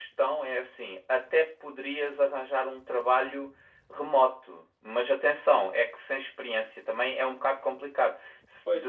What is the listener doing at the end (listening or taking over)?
taking over